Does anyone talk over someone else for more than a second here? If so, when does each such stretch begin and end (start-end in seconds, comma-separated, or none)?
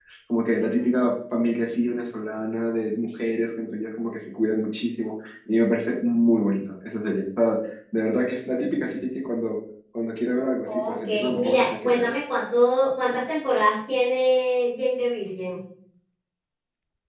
10.7-12.1